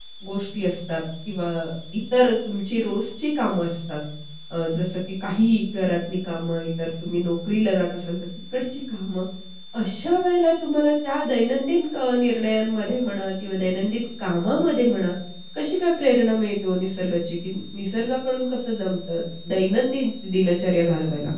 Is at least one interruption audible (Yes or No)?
No